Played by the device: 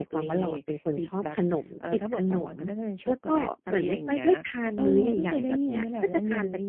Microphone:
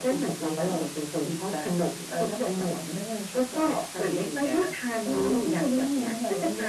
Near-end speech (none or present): none